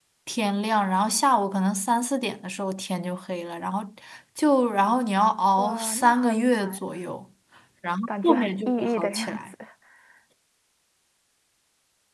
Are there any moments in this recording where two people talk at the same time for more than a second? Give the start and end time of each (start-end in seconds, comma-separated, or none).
5.6-6.8, 8.1-9.5